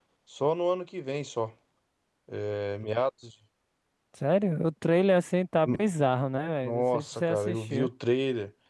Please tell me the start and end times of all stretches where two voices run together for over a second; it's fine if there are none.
6.6-7.9

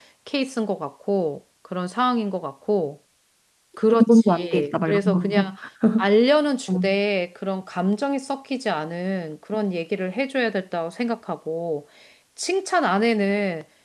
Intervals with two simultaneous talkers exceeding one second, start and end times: 4.0-5.4

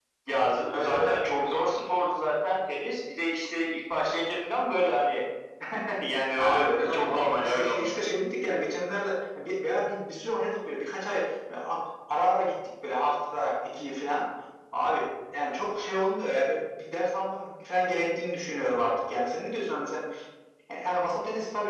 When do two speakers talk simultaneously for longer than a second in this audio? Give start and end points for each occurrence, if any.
6.4-7.9

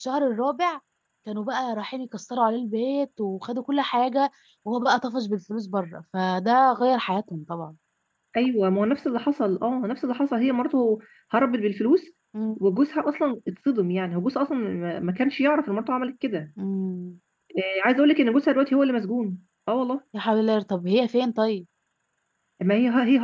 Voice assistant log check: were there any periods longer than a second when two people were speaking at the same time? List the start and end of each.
none

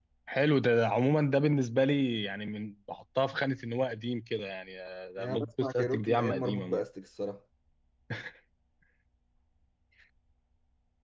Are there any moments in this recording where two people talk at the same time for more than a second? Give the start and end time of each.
5.2-6.8

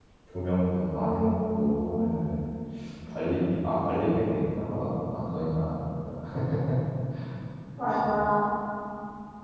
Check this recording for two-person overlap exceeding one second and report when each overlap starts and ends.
0.9-2.2

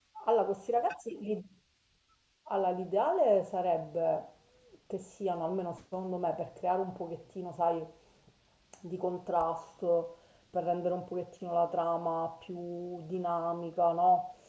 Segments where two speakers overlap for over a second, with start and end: none

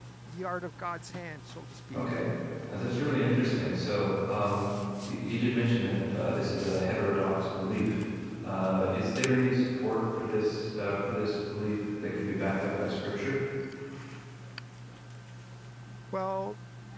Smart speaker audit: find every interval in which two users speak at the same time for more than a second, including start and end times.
none

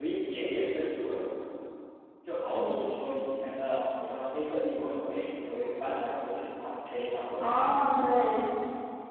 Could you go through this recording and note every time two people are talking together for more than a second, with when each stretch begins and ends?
none

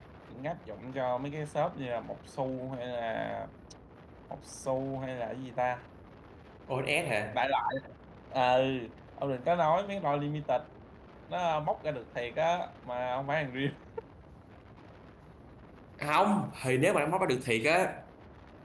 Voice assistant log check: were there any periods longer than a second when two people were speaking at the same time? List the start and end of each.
none

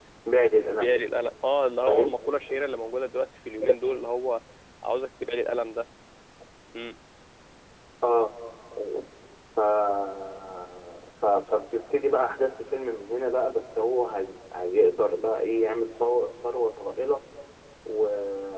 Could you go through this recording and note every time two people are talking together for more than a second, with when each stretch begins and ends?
none

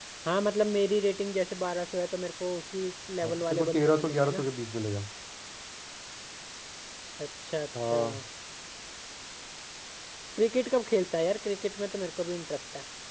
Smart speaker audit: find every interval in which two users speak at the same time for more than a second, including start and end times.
3.2-4.4

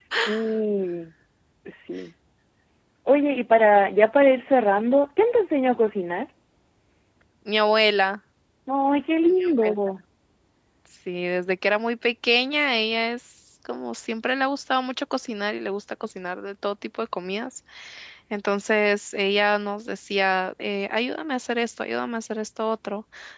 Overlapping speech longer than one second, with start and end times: none

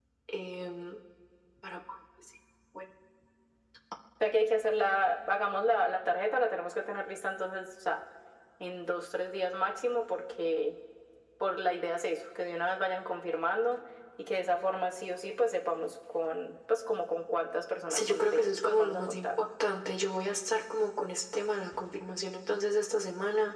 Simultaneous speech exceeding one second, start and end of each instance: 17.9-19.3

